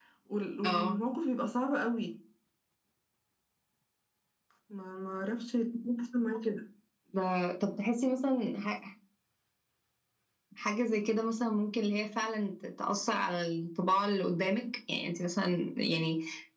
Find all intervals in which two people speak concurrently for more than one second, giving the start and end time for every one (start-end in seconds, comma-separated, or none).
none